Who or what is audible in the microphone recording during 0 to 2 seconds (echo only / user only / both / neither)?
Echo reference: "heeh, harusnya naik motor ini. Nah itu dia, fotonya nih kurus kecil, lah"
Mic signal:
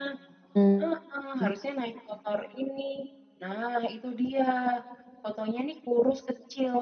both